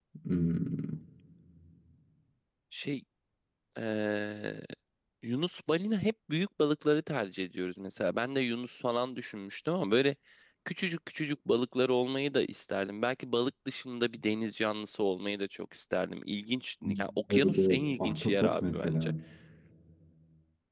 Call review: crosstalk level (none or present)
present